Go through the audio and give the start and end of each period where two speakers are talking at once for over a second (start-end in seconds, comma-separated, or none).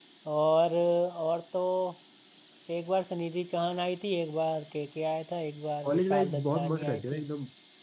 5.8-7.2